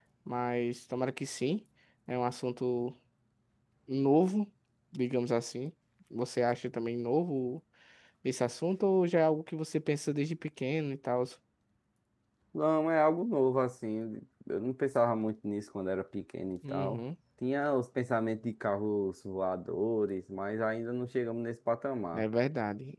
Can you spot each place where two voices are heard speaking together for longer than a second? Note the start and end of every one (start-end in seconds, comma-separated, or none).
none